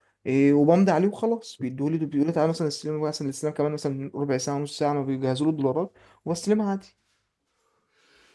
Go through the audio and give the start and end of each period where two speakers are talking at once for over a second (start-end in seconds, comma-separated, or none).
none